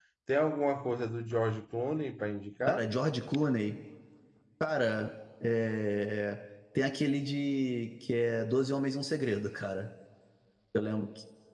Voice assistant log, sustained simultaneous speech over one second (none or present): none